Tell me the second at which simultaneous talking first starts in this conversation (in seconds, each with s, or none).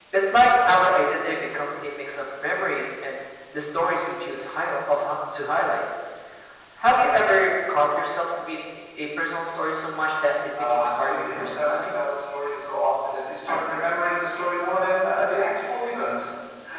10.6 s